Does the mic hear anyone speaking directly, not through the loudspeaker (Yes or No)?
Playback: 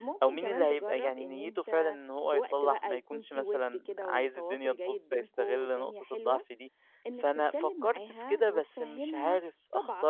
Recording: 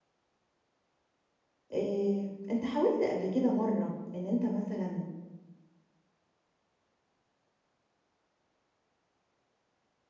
Yes